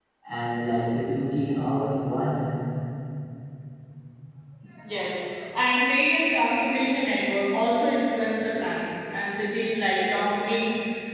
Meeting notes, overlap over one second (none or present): none